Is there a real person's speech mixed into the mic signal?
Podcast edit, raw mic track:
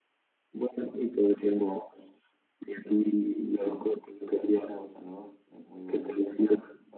Yes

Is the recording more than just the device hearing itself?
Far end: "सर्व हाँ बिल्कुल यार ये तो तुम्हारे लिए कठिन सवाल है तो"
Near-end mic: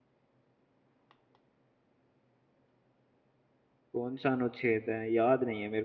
Yes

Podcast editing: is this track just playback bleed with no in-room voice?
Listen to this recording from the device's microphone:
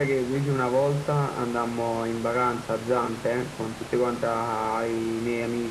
Yes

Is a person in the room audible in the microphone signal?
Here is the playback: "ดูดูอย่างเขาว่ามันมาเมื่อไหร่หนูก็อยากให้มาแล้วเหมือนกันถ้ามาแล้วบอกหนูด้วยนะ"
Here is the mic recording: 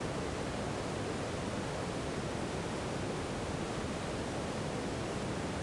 No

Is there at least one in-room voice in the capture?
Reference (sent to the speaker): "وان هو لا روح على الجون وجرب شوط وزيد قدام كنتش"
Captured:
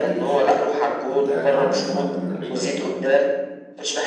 Yes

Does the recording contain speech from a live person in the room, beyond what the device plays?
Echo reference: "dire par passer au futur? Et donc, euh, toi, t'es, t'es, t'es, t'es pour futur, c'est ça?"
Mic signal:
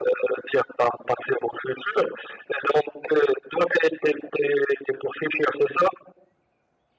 No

